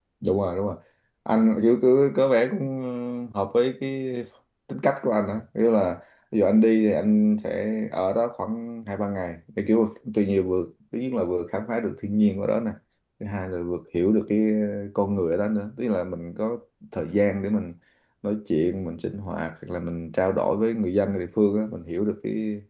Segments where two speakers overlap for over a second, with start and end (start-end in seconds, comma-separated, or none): none